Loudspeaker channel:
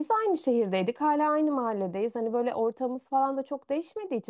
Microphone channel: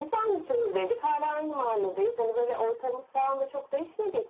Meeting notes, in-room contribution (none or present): none